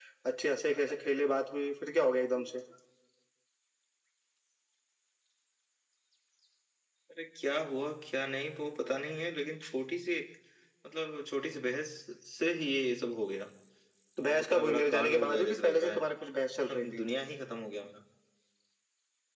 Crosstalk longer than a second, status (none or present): present